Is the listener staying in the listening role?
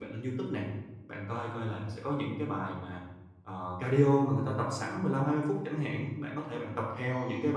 Yes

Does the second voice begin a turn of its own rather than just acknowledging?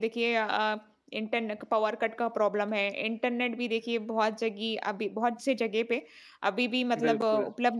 No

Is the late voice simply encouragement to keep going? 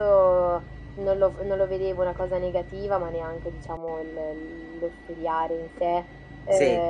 Yes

